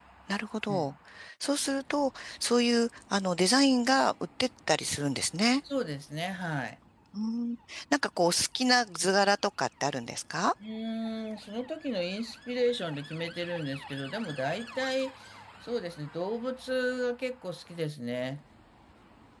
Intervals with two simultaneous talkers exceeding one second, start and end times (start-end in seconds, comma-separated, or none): none